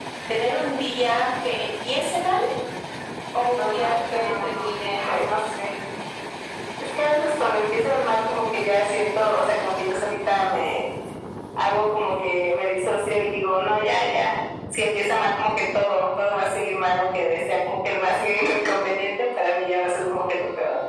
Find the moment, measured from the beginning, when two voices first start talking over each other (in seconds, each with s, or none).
3.8 s